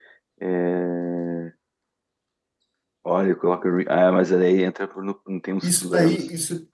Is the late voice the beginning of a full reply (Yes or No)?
Yes